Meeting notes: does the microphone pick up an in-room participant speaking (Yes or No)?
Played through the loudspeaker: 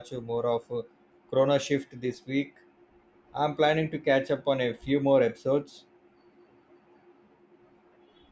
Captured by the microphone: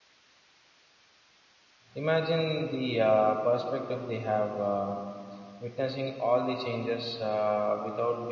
Yes